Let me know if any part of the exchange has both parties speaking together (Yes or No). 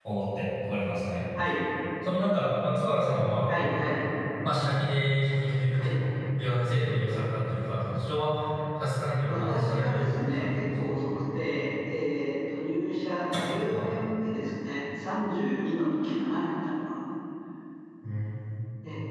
Yes